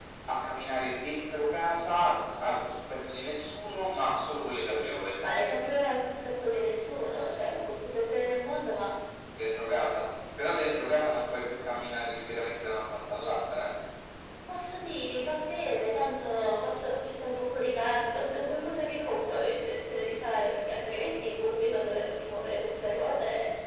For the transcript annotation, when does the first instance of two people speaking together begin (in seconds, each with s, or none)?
none